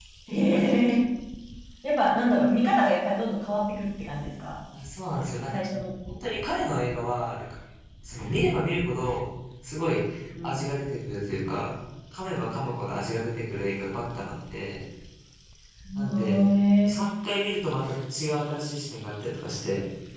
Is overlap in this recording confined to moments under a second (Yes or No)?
Yes